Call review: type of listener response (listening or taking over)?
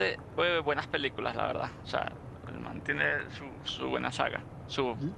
taking over